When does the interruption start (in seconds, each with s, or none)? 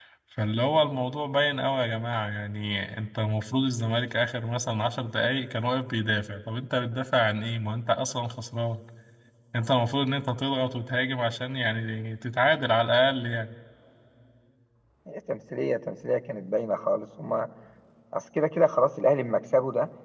none